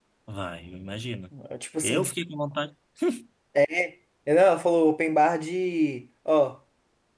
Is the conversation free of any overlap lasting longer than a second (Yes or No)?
Yes